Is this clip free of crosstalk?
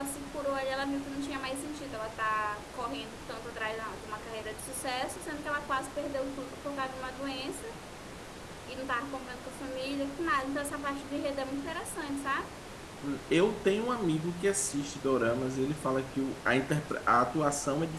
Yes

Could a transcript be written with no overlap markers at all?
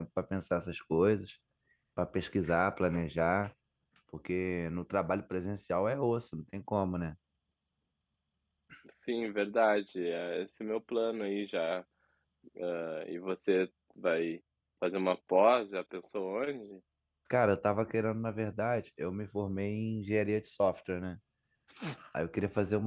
Yes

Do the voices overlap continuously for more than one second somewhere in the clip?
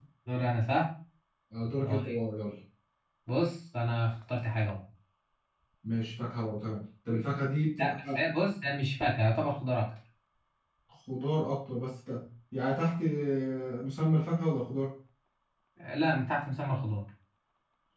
No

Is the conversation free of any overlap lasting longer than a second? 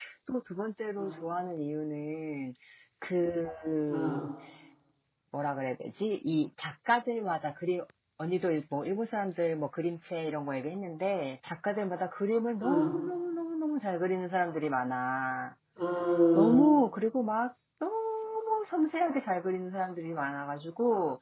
Yes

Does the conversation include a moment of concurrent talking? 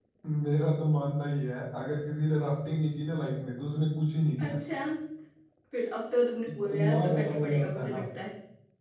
Yes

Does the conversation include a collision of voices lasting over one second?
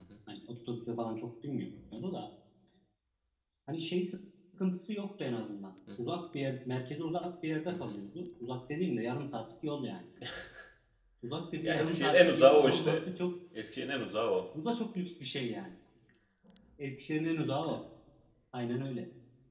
Yes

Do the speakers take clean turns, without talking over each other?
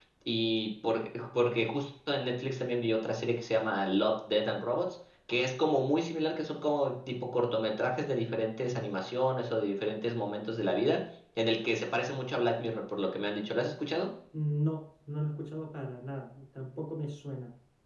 Yes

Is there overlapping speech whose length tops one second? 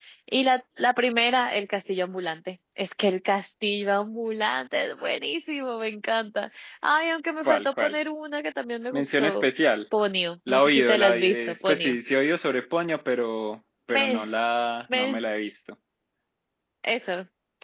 Yes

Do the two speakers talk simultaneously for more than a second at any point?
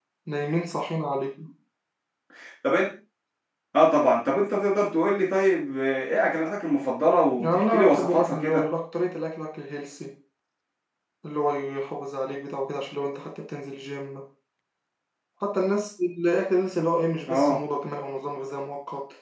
Yes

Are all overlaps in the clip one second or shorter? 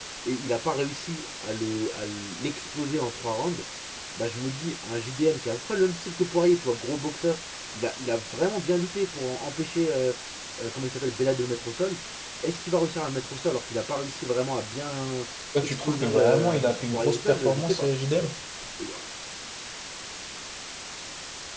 No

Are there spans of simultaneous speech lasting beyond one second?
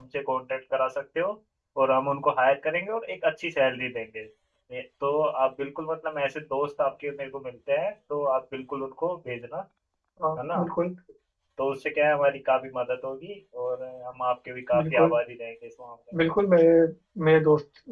No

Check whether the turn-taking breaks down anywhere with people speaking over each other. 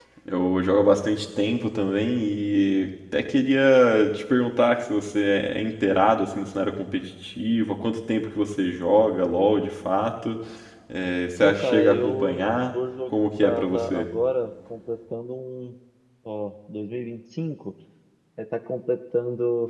Yes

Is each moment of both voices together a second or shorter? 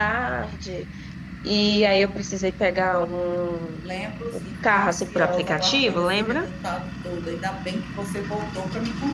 No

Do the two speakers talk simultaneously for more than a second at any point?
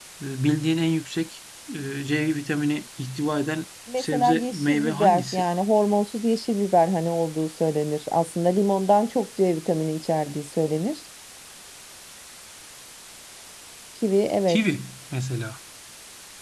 Yes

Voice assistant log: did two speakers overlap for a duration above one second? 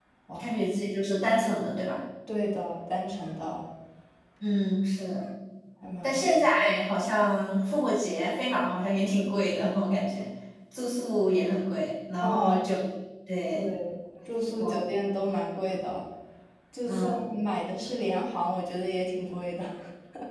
No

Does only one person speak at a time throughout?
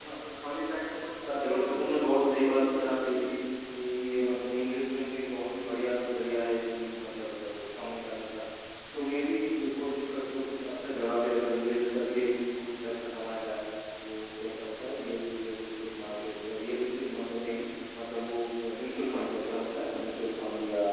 No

